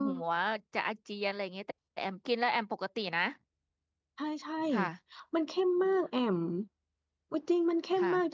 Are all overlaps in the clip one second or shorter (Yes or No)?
Yes